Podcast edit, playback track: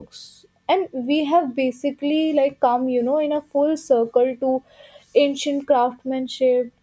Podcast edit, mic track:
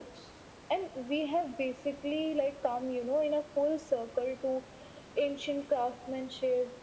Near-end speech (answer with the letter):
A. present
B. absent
B